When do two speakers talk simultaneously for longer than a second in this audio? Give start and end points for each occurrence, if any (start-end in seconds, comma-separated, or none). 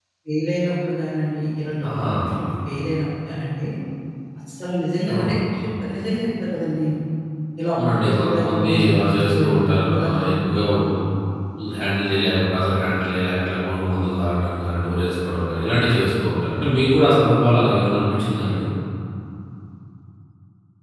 7.7-10.6